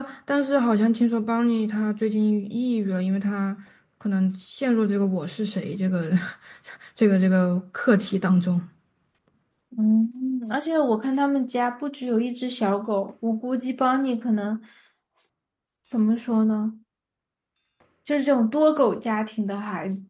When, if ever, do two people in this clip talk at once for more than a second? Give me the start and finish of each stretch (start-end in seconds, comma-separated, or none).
none